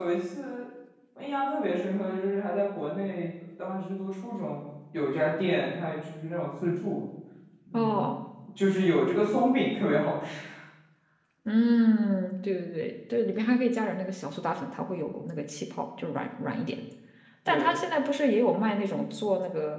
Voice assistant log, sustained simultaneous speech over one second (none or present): none